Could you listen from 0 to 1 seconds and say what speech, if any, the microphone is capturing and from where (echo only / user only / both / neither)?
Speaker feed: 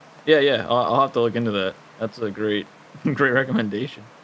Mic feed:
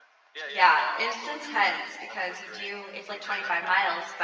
both